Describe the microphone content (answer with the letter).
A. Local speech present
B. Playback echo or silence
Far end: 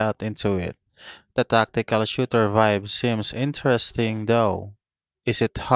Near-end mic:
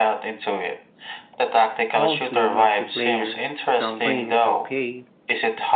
A